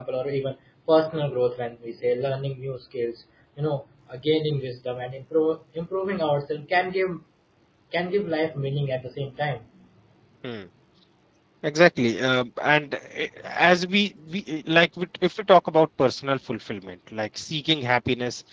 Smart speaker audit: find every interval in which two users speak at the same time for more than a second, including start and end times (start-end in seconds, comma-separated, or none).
none